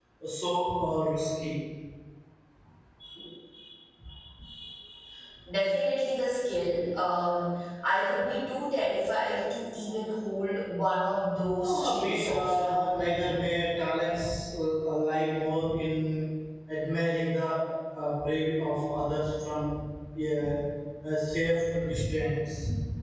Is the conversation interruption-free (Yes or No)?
No